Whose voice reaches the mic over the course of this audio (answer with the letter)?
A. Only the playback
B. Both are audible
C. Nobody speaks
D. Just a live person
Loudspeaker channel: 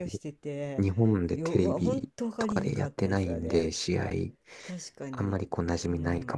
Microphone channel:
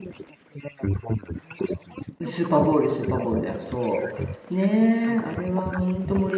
B